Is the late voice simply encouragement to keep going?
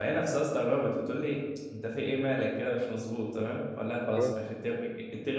Yes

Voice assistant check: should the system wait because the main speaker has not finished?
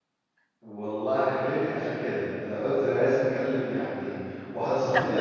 Yes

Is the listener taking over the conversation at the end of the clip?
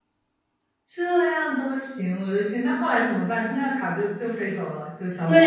Yes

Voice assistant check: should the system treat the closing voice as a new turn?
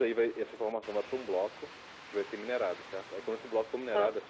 No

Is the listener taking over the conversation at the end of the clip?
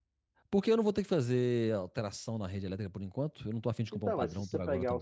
Yes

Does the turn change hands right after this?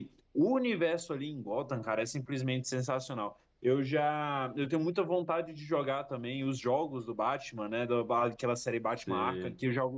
No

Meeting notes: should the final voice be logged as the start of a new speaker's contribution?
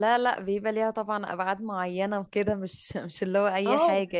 Yes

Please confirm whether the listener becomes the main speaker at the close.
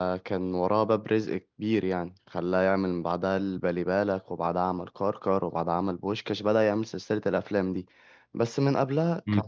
Yes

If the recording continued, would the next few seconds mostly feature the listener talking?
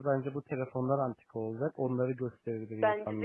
Yes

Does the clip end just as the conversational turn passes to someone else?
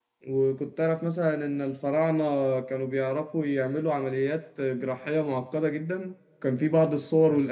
No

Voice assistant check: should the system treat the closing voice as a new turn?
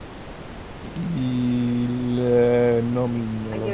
Yes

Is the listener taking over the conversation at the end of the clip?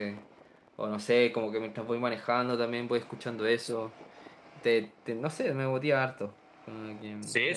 Yes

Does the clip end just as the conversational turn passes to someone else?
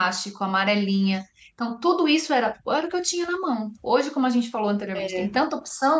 No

